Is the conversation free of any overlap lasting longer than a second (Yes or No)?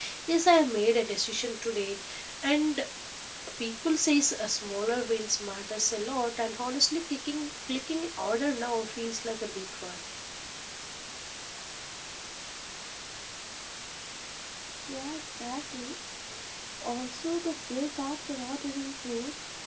Yes